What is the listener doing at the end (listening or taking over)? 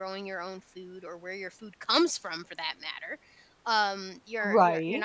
listening